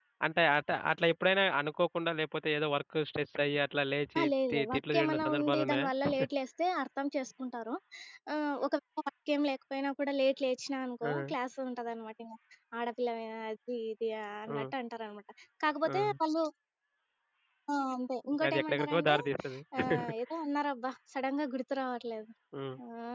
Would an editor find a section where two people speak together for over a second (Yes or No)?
Yes